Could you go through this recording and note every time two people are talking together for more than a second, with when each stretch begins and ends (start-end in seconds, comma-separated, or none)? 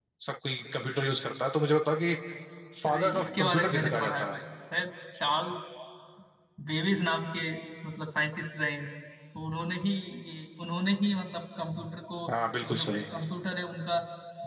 2.8-4.4